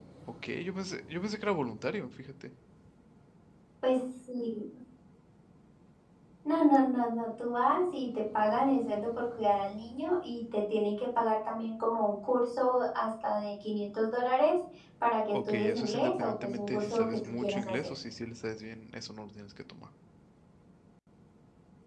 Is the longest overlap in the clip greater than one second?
Yes, from 15.3 s

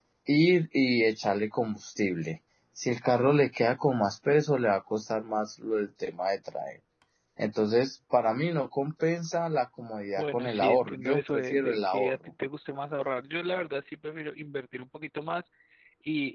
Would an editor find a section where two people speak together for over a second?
Yes, from 10.2 s

